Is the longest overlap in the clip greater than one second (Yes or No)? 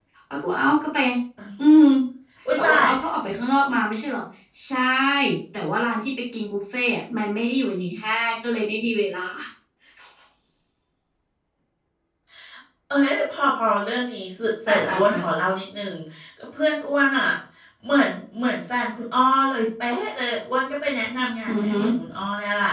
No